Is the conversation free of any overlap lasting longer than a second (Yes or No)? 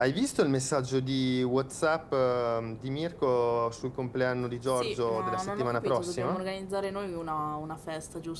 No